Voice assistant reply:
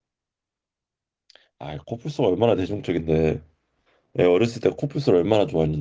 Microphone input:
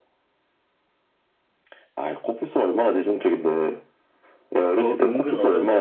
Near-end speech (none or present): present